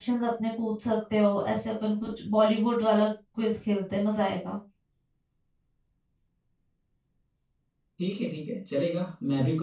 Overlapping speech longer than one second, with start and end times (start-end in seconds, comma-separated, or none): none